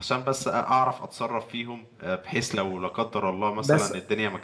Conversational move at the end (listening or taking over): listening